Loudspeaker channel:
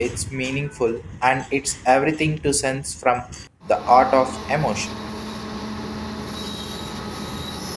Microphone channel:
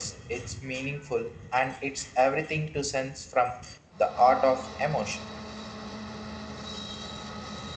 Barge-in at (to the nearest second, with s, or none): none